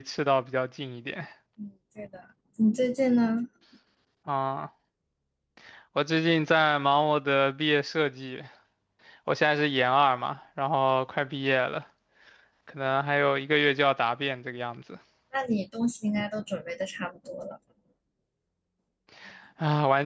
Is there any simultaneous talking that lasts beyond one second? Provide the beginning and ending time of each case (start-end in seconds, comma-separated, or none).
none